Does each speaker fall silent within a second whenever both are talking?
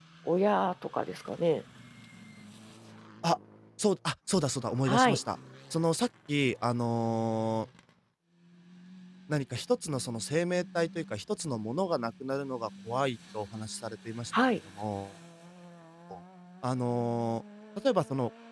Yes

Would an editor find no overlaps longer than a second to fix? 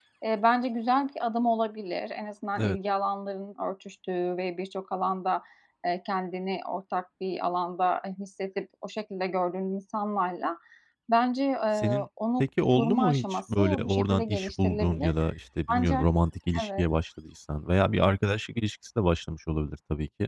No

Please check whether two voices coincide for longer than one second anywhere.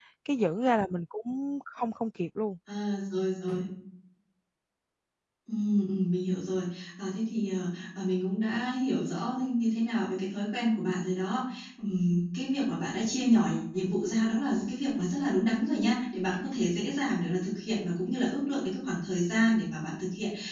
No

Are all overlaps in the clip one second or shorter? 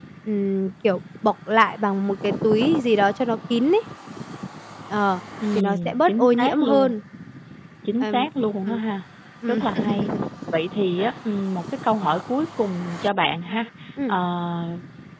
No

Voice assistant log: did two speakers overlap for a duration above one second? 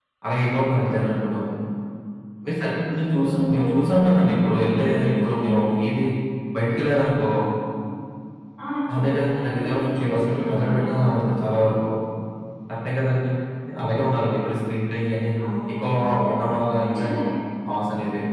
Yes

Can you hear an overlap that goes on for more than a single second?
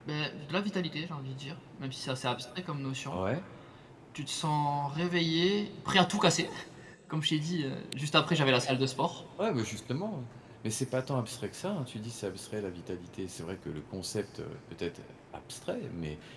No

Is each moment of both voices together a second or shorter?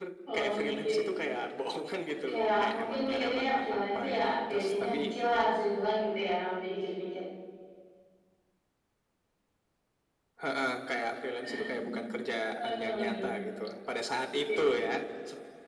No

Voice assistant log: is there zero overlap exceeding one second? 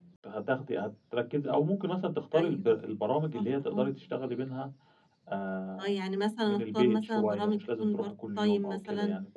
No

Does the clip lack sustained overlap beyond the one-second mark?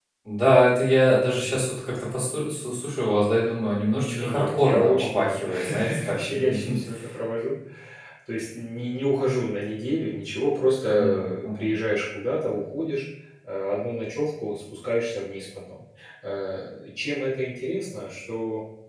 No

